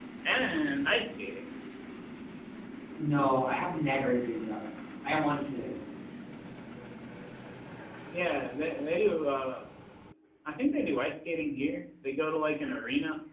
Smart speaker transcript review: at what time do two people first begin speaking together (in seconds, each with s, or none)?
none